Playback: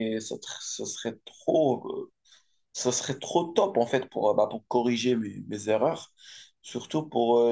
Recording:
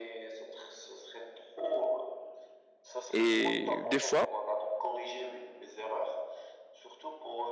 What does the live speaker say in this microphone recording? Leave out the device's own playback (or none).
Et des fois,